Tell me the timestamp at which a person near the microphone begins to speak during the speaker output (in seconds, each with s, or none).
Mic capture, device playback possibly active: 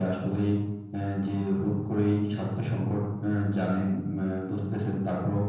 none